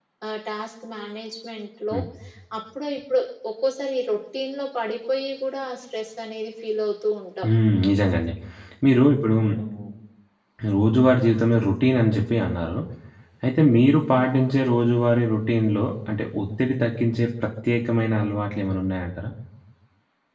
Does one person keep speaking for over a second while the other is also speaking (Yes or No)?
No